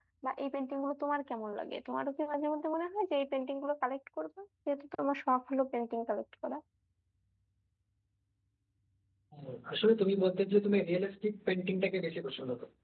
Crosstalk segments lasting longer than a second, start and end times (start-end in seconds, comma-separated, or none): none